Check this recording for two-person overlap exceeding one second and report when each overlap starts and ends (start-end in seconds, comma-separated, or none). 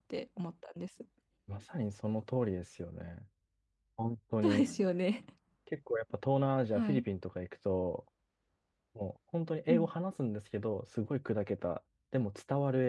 none